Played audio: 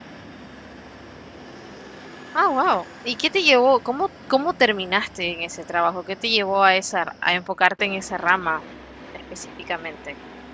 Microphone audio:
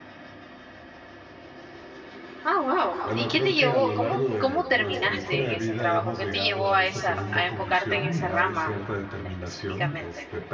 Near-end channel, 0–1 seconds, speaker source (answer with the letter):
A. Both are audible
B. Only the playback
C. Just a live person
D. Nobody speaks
D